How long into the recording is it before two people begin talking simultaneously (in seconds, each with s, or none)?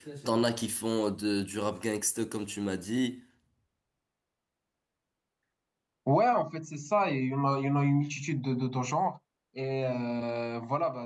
none